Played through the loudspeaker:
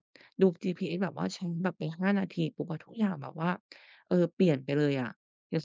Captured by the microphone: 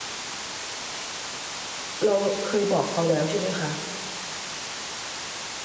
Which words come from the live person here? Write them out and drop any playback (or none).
เราเคยบอกเขาแล้วใช่ไหมคะ